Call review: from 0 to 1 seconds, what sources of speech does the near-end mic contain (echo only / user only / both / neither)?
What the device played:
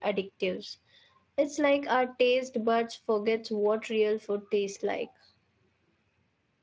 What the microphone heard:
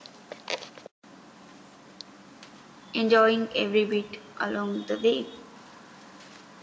neither